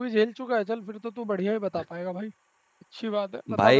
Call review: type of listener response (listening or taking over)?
taking over